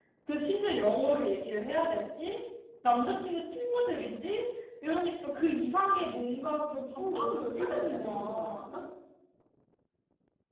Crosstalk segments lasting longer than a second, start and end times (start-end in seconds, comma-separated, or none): 7.0-8.7